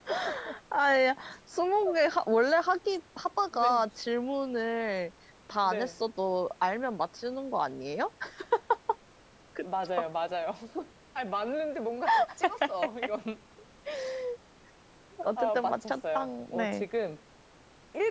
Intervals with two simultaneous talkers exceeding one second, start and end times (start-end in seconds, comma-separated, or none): 15.4-16.9